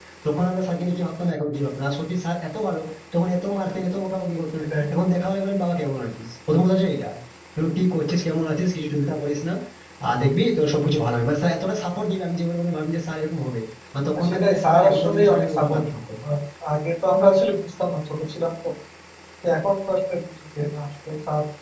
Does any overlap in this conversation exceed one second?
Yes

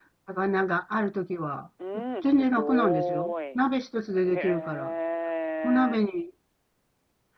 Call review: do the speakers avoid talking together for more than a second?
No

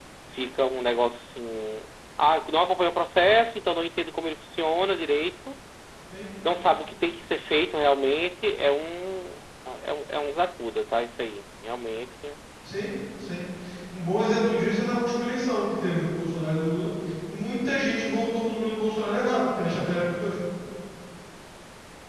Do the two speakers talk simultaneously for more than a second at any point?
No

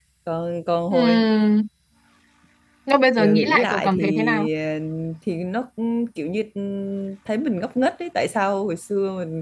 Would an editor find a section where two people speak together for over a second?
Yes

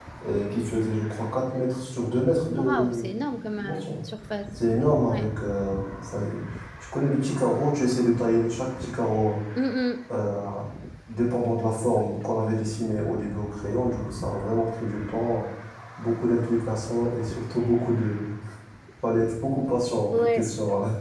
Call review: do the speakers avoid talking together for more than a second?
No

